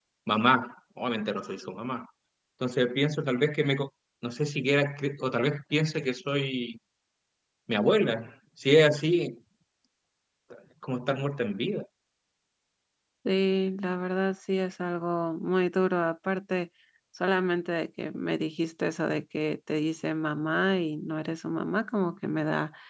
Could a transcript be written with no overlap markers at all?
Yes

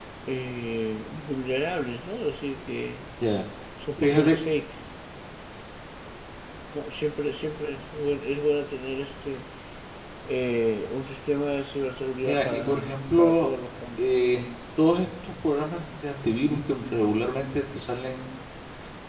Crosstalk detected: Yes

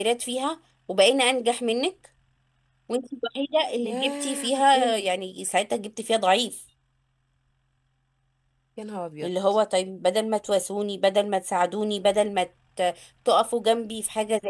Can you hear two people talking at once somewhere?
Yes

